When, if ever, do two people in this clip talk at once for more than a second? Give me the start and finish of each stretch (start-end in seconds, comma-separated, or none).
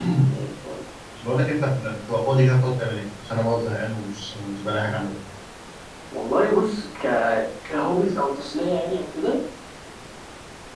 none